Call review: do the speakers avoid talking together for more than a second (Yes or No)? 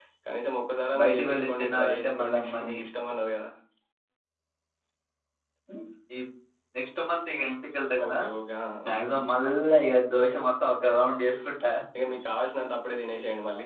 No